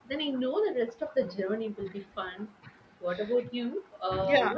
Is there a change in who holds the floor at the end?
No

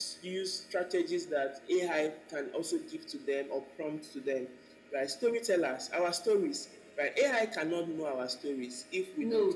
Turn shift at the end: No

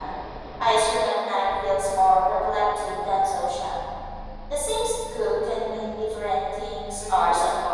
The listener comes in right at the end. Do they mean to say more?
Yes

